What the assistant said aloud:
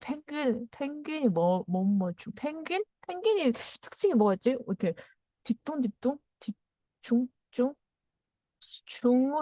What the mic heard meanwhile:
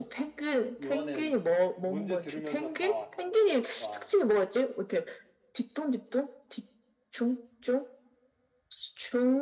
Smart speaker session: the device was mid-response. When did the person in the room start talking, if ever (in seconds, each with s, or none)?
0.8 s